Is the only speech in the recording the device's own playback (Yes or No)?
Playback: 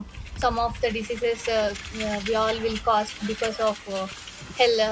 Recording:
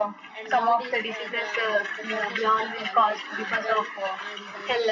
No